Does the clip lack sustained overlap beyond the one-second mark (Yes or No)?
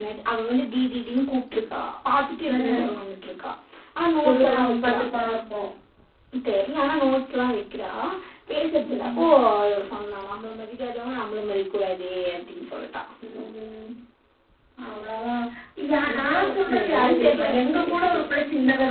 No